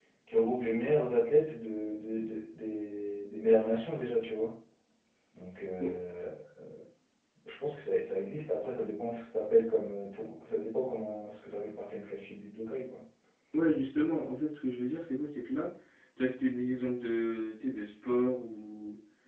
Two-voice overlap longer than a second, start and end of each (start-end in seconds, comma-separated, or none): none